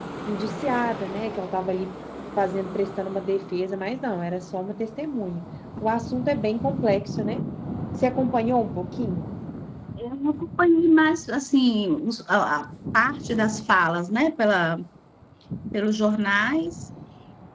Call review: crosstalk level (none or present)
none